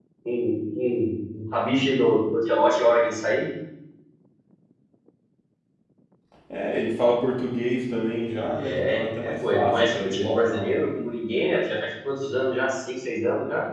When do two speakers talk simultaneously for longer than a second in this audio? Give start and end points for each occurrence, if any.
8.3-10.7

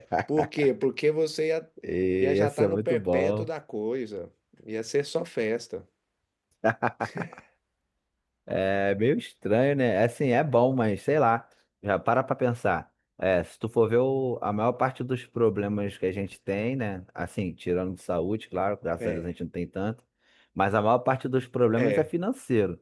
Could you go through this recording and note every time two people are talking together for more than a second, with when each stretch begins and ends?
2.2-3.5

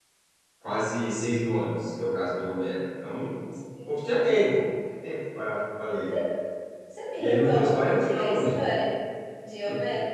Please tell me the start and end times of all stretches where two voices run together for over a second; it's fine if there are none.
7.2-8.6

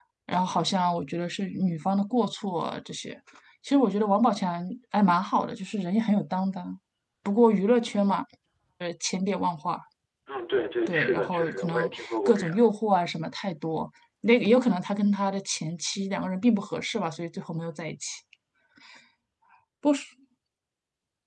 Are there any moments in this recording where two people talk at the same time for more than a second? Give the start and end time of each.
10.9-12.5

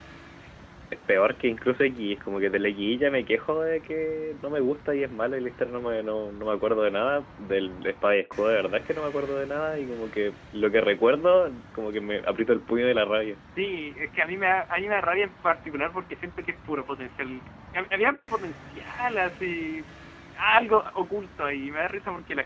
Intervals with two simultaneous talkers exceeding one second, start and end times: none

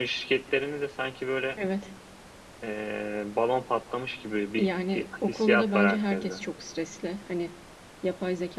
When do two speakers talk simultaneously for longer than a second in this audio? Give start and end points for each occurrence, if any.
4.6-6.3

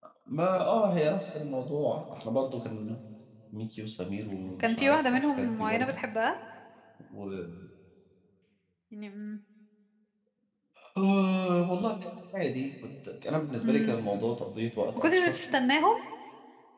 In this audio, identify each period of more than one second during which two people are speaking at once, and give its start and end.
4.6-5.9

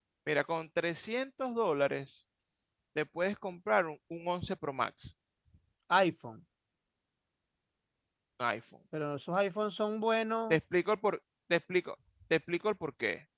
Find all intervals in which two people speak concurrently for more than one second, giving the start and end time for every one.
none

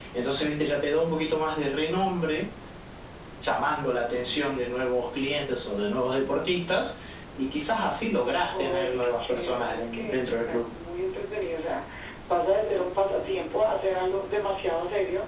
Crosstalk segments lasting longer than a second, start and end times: 8.5-10.6

